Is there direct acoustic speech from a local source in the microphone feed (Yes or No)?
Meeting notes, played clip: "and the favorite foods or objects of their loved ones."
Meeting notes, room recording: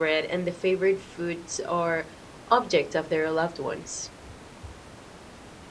No